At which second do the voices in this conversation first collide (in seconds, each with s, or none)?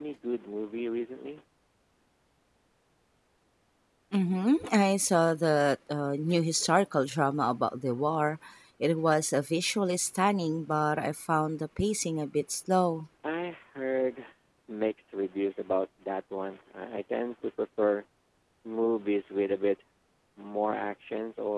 none